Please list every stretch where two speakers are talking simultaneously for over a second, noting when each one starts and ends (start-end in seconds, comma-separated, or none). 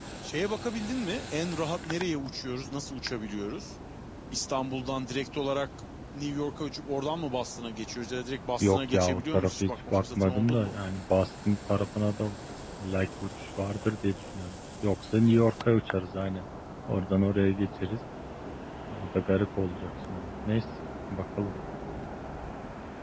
8.6-10.8